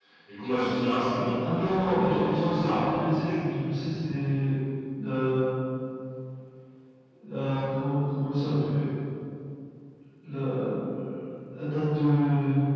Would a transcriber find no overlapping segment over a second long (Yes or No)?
No